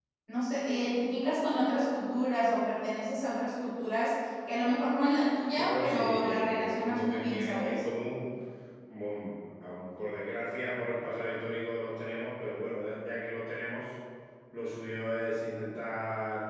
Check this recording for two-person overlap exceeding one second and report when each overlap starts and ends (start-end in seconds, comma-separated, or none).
5.6-7.8